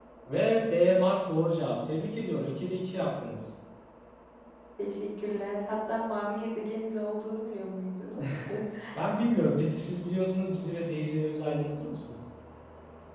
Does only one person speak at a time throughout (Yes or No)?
Yes